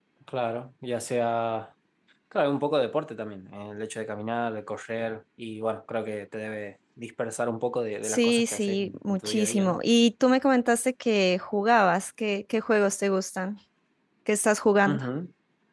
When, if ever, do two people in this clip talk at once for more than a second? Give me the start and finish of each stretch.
8.0-9.8

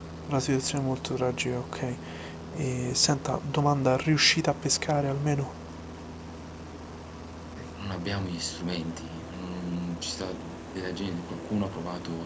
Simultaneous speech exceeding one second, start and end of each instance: none

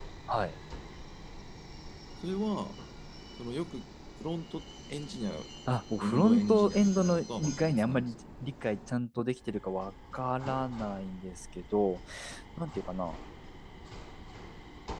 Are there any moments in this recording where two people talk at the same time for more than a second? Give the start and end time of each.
6.0-8.1

